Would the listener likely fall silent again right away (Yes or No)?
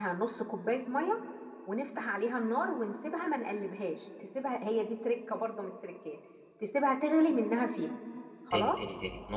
No